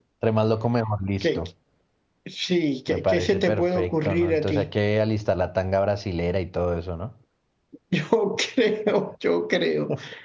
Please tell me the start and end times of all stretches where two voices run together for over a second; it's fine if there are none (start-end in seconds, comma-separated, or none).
2.9-4.7